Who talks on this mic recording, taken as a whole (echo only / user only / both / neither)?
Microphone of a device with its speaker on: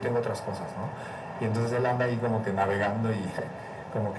echo only